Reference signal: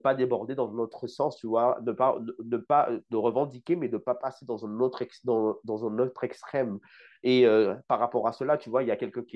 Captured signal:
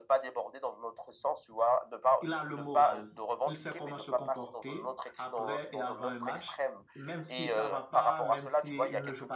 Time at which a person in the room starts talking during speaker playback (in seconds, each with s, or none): 2.2 s